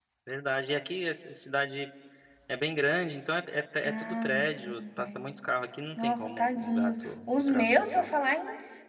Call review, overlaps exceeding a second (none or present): present